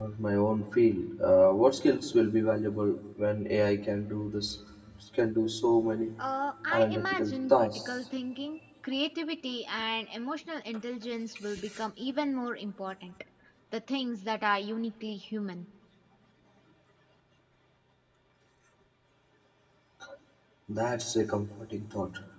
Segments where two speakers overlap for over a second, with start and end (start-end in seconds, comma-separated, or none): 6.7-8.0